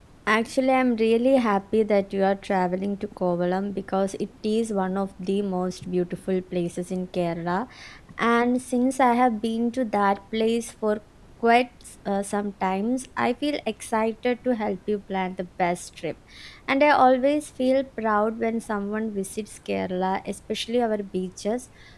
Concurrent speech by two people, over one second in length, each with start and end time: none

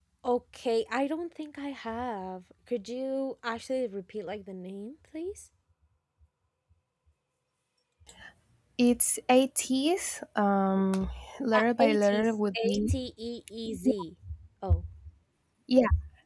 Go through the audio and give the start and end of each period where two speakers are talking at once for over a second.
11.6-12.9

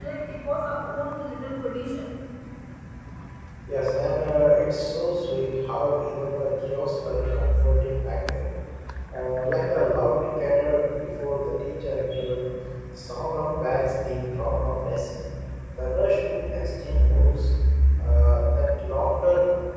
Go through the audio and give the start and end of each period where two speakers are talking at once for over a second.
none

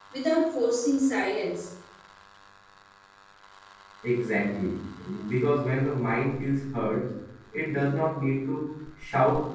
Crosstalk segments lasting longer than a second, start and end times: none

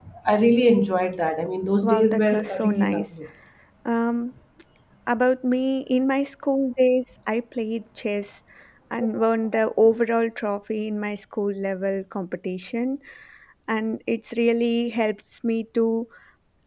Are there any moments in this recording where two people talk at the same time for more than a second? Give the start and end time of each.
1.8-3.1

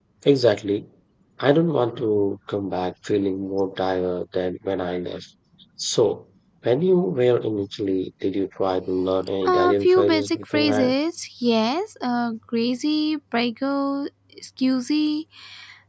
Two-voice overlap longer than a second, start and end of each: 9.5-10.9

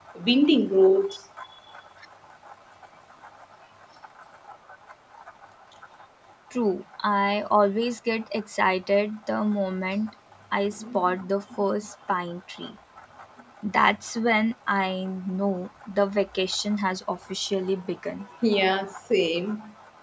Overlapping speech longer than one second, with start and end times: none

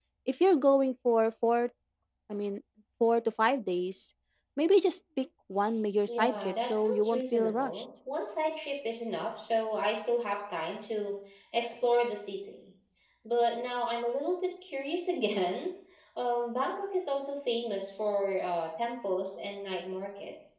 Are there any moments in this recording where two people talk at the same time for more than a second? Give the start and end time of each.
6.1-7.8

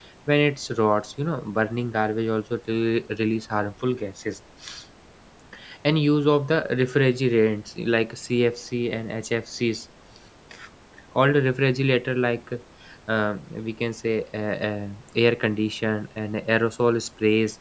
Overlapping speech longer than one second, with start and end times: none

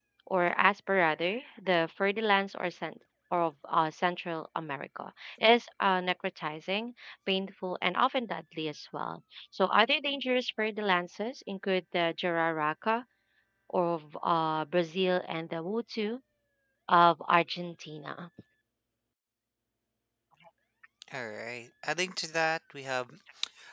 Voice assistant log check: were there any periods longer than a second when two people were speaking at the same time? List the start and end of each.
none

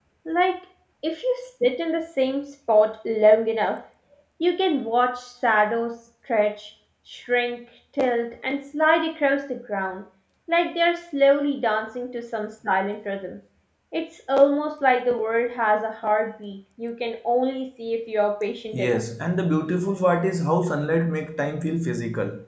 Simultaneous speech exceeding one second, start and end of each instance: none

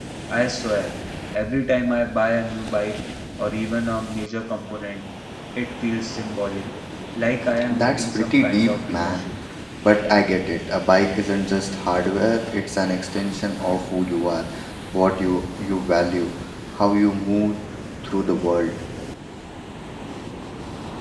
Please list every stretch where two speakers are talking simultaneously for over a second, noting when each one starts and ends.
7.7-9.2

